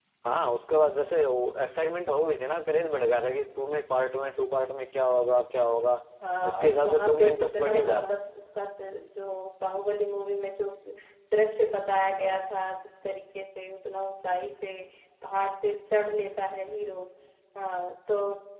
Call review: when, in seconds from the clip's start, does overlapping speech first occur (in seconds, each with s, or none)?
6.5 s